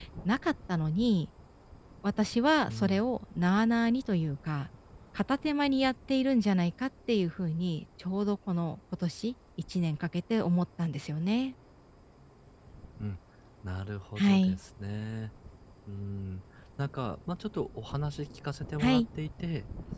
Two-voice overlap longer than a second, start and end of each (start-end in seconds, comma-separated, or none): none